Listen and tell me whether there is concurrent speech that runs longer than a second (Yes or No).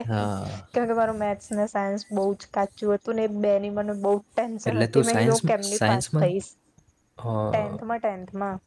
Yes